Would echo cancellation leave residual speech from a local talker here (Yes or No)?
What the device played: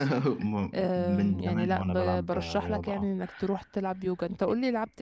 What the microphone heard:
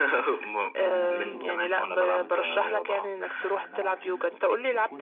Yes